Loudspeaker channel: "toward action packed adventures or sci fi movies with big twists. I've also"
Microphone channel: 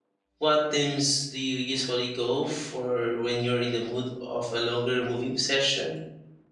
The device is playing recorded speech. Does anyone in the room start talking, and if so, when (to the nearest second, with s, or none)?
0 s